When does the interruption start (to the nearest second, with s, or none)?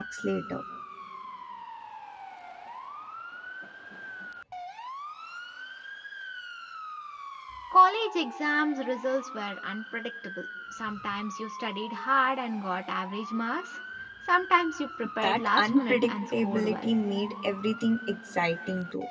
15 s